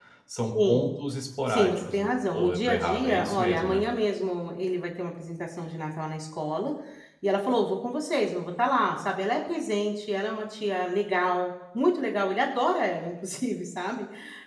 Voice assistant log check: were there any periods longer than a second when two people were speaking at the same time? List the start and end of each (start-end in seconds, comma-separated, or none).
1.5-3.8